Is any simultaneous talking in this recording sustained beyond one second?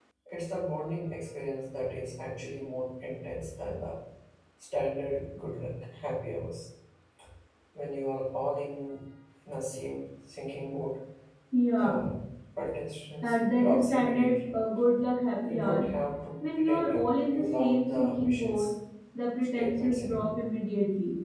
Yes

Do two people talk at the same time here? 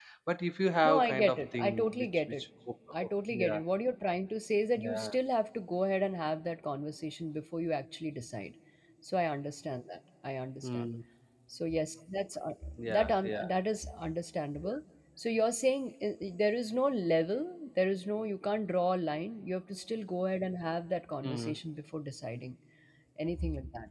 Yes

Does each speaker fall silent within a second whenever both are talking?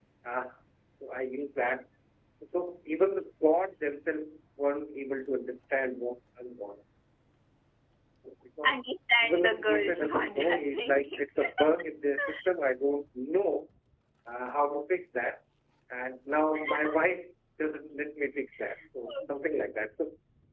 No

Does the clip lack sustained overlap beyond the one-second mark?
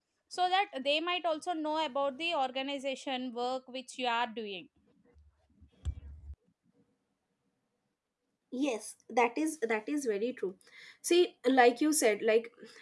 Yes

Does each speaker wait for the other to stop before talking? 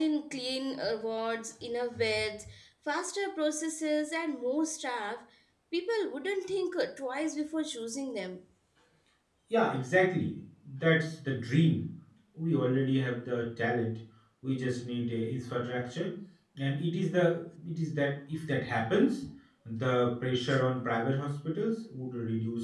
Yes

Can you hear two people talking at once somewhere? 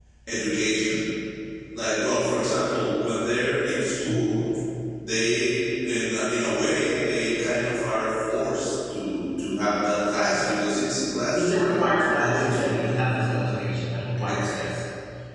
Yes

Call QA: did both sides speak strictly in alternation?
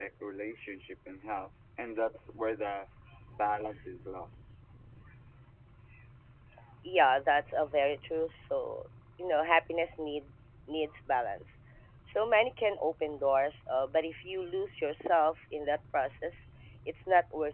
Yes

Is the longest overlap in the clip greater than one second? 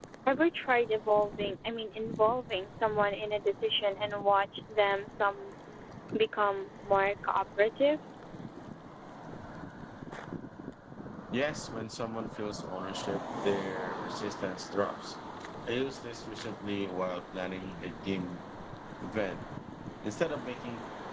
No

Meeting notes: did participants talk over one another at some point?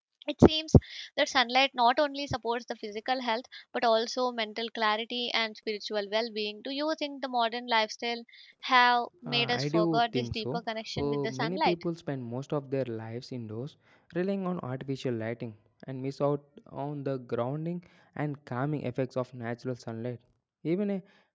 Yes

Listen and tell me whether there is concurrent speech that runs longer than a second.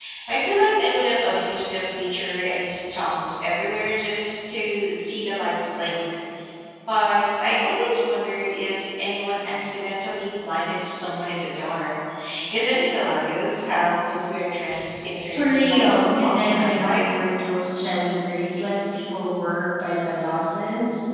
Yes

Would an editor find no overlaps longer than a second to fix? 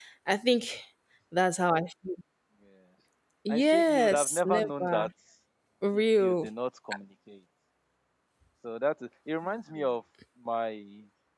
No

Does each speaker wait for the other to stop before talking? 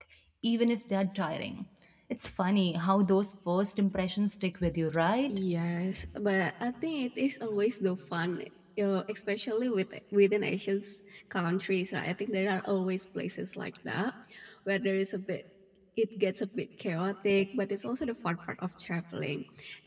Yes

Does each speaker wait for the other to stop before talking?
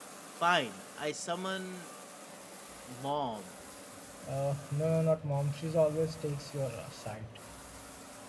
Yes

